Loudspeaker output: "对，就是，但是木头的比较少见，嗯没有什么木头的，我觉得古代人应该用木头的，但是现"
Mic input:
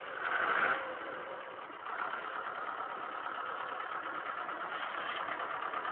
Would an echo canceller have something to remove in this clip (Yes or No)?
No